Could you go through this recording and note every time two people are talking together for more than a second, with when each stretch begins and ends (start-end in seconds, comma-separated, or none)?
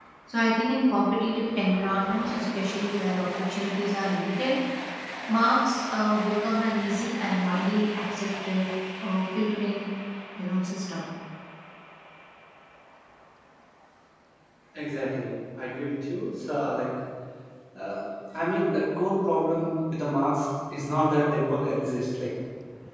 none